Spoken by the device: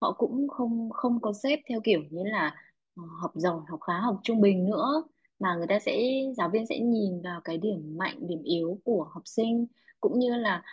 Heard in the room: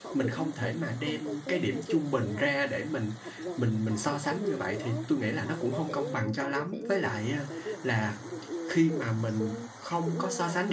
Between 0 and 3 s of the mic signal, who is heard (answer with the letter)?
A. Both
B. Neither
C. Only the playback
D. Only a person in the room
A